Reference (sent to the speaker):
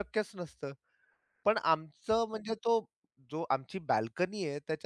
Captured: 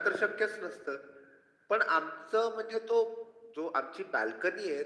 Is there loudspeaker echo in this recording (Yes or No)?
Yes